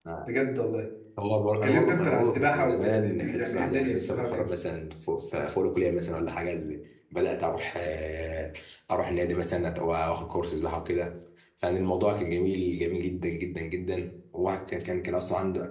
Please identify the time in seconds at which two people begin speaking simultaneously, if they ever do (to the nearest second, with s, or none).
2 s